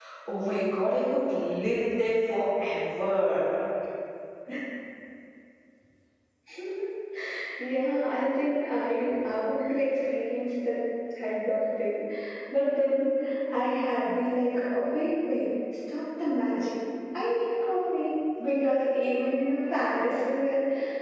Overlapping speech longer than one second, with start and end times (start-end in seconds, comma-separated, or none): none